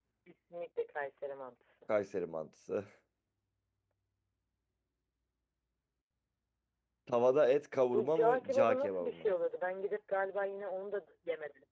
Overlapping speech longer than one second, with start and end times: 7.9-9.2

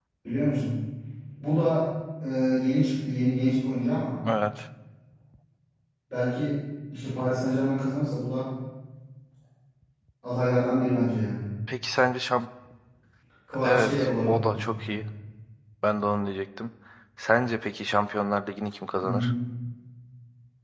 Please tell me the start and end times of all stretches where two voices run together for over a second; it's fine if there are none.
13.6-15.0

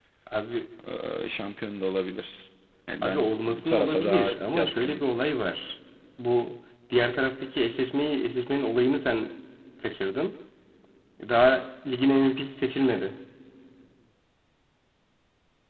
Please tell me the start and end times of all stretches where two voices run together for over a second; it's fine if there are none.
3.0-5.0

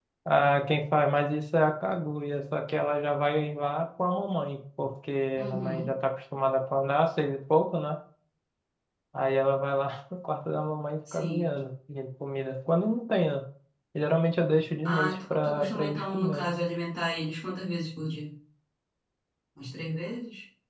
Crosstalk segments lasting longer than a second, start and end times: 14.8-16.5

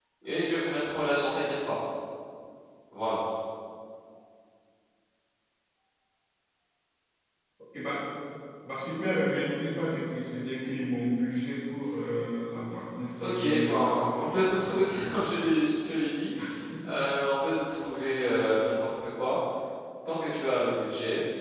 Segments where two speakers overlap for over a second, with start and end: 13.2-14.5

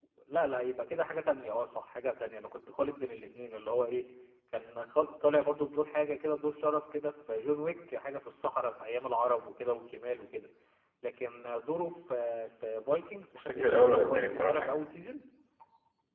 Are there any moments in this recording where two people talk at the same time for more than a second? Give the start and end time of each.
13.3-14.8

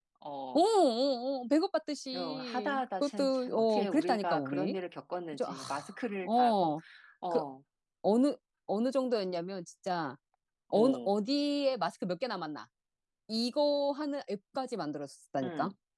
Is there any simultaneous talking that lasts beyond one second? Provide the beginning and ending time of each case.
2.1-4.8

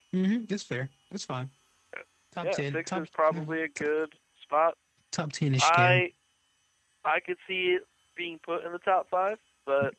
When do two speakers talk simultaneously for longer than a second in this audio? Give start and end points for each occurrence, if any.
2.4-3.8

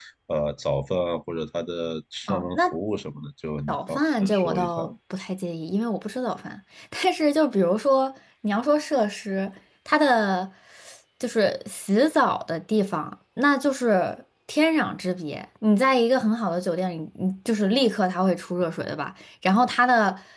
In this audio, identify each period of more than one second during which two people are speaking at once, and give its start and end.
3.7-4.9

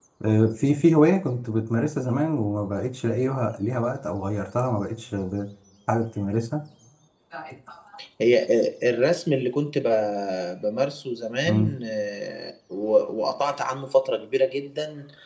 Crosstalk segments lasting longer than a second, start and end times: none

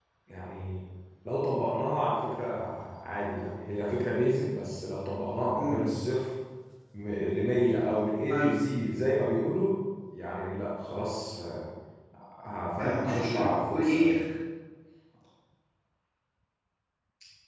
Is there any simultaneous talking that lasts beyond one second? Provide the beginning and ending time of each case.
12.8-14.1

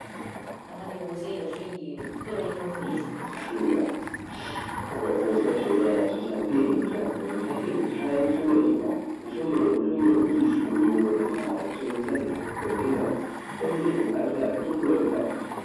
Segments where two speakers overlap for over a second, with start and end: none

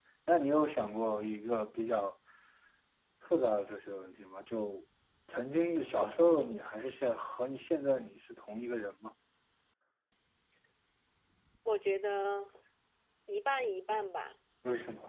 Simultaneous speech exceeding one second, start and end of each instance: none

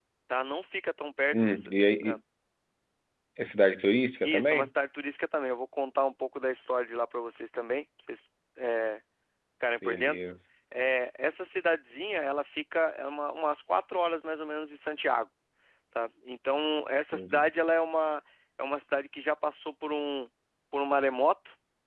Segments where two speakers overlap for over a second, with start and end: none

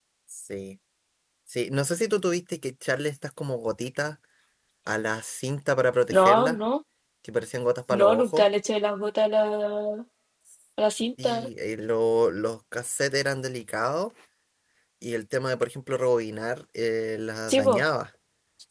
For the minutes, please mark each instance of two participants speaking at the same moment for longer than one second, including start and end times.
none

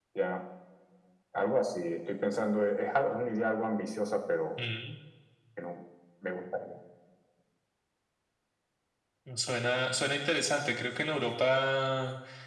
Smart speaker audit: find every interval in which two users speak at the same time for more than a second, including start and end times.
none

